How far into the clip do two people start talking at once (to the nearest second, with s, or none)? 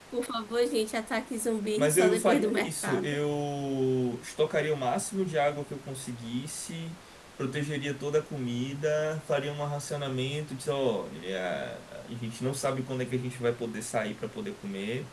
2 s